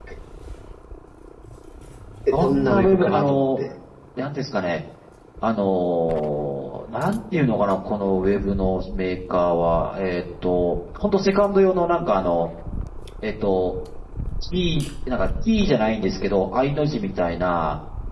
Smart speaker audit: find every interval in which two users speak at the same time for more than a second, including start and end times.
2.3-3.6

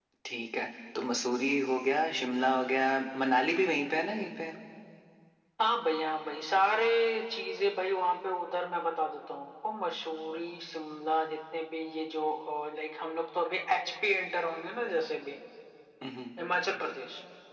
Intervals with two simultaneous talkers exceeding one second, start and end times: none

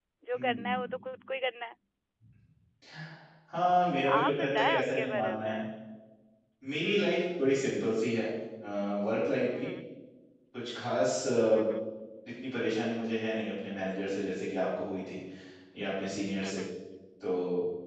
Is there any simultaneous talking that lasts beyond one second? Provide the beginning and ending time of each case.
4.2-5.6

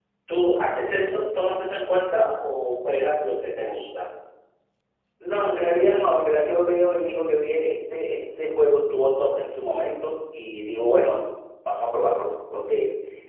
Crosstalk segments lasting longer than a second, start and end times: none

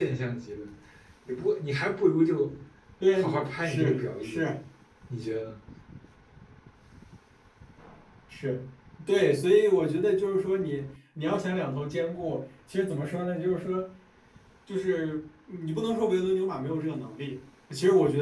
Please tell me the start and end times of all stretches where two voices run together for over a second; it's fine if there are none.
3.1-4.5

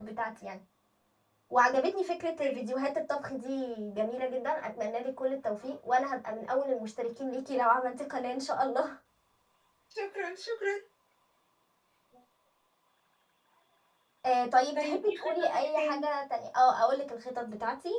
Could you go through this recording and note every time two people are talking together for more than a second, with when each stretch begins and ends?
14.7-16.1

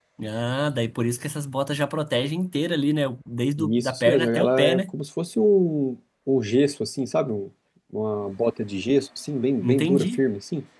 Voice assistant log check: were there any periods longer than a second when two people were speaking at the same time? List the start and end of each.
3.6-4.8

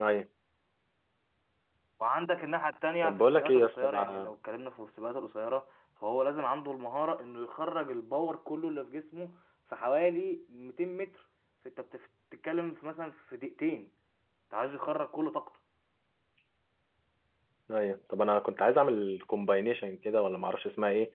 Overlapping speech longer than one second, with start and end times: 3.0-4.3

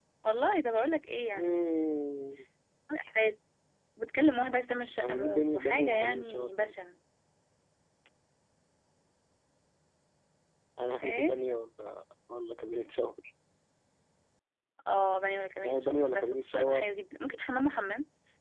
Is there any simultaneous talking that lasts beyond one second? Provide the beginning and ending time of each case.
5.0-6.7, 15.6-16.9

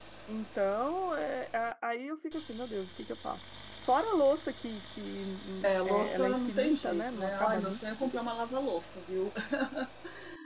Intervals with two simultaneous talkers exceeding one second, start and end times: 5.6-7.8

